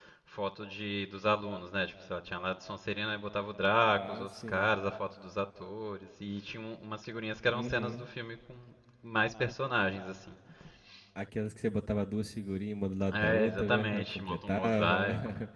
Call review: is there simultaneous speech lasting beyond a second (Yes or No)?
Yes